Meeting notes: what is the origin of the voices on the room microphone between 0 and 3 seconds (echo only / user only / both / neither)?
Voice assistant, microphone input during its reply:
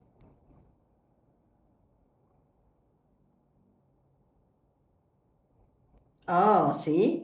neither